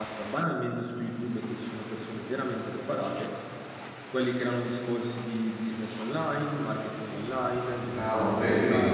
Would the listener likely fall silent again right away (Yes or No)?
No